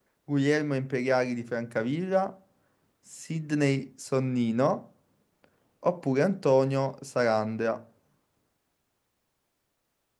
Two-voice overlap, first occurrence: none

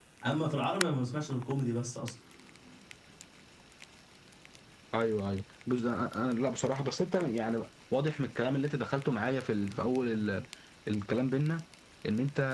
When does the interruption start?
none

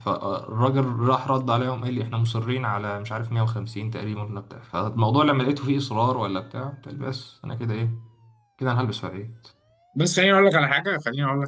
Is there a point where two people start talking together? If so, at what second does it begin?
none

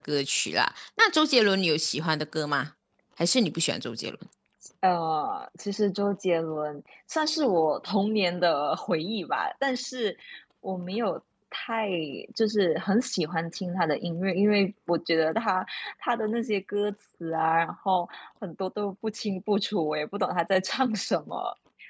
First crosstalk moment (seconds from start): none

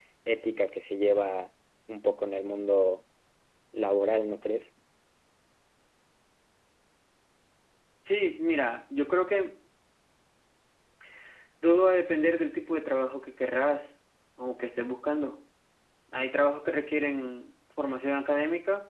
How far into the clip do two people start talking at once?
none

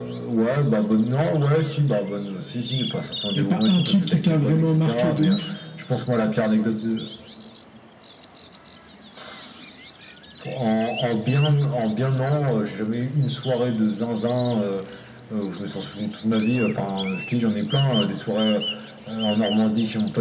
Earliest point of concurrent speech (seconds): 3 s

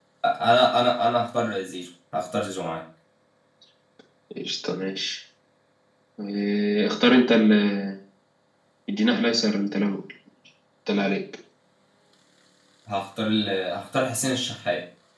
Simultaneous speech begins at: none

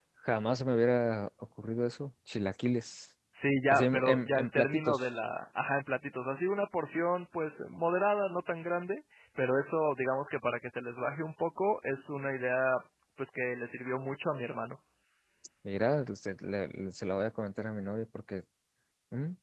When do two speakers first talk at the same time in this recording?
4 s

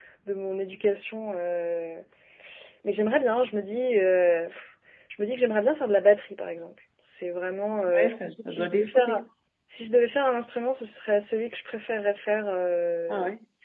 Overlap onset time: 8 s

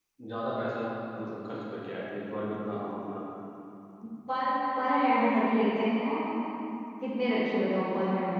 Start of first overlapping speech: none

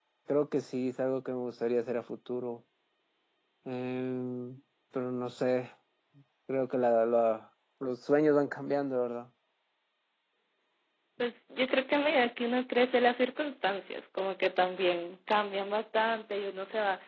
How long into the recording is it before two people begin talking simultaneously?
none

